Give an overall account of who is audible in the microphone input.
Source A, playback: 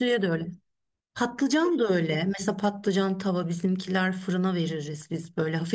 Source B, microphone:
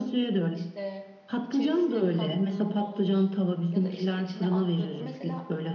both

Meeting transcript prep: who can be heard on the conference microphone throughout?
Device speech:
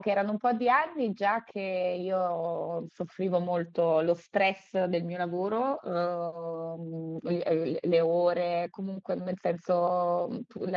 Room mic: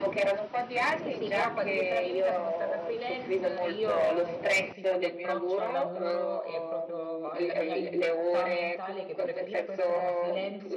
both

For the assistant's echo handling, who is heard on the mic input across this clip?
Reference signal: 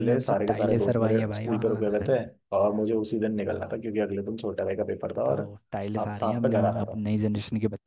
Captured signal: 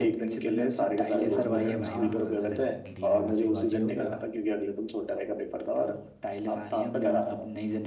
both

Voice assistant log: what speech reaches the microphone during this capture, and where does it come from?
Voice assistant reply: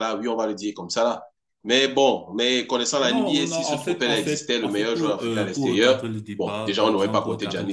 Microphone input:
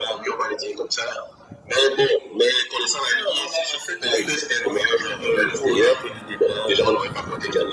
echo only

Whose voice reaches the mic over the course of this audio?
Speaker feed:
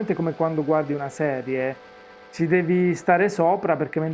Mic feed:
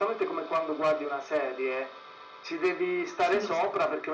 both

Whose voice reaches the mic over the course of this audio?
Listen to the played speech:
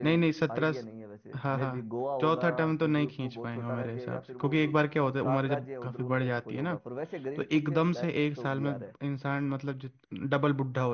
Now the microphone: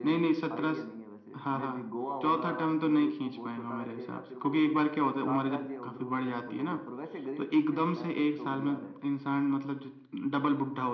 echo only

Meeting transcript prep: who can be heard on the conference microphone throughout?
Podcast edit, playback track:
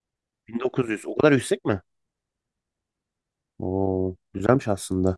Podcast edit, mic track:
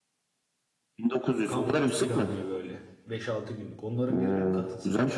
both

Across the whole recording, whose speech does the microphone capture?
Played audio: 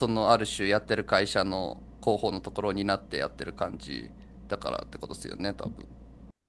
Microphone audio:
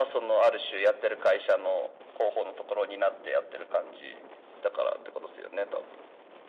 echo only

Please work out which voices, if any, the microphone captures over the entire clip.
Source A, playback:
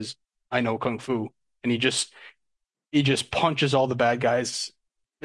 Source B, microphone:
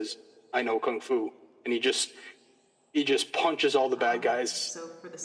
both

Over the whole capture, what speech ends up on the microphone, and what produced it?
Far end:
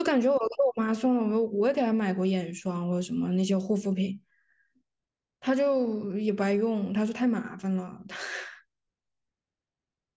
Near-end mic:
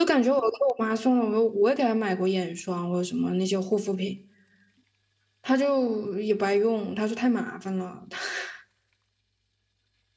echo only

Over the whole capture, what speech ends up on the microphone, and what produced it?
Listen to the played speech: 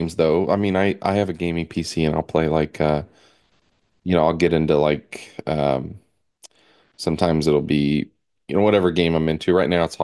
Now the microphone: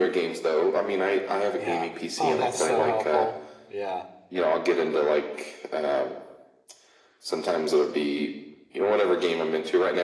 both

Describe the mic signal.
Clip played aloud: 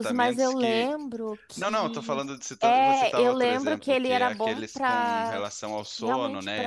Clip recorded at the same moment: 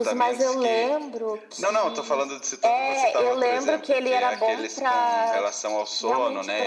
echo only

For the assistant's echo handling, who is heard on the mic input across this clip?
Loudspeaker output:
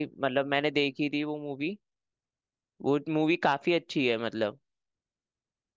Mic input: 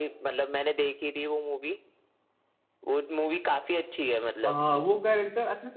both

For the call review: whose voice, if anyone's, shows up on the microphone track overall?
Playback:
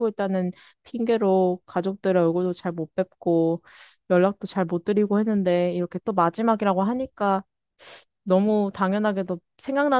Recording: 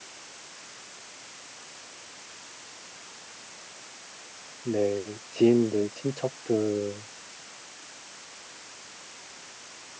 user only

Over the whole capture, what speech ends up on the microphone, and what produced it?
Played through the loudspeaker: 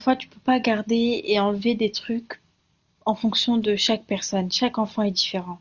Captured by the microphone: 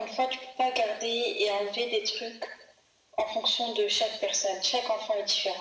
echo only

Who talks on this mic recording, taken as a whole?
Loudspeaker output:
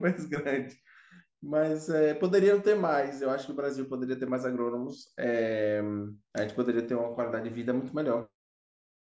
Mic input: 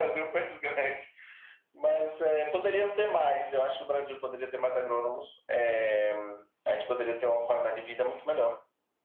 echo only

